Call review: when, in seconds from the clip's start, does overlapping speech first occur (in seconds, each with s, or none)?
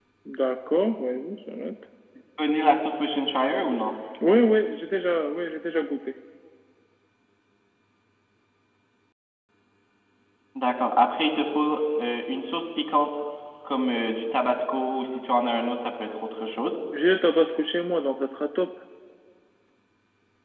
none